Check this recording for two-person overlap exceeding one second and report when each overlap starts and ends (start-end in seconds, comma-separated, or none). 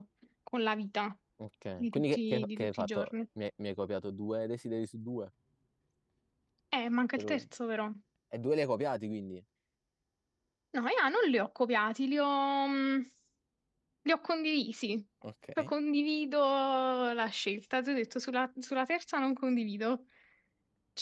1.8-3.1